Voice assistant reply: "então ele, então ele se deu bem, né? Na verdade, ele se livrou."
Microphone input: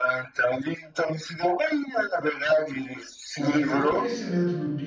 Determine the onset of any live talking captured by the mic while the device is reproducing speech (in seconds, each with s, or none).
3.4 s